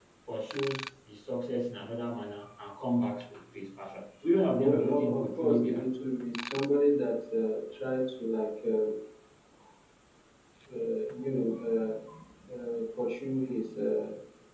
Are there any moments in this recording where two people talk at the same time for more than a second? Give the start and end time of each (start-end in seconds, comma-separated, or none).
4.6-5.9